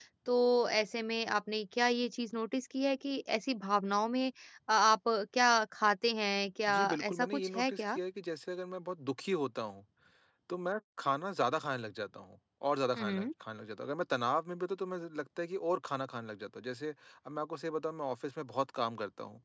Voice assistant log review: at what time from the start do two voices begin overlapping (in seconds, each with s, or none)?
6.7 s